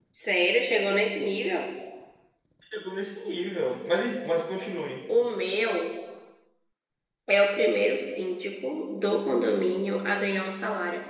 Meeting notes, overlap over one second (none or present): none